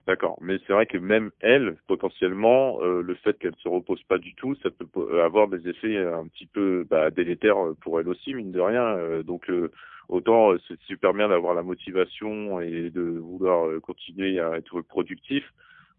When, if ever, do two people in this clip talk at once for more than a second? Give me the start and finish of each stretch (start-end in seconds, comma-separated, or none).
none